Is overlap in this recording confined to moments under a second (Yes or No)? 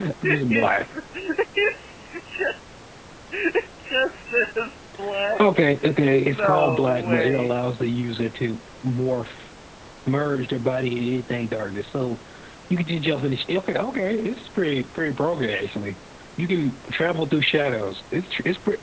No